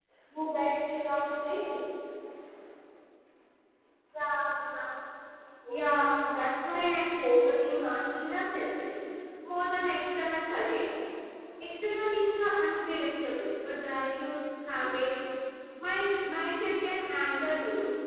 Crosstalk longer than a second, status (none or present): none